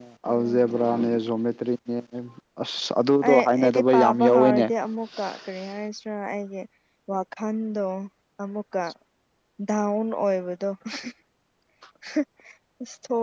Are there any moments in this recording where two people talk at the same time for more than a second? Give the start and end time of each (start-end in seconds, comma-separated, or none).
3.3-4.7